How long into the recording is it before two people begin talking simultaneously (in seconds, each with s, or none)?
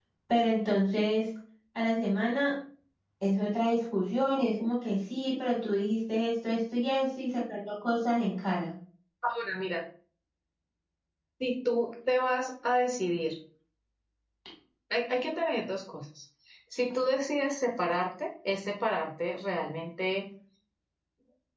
none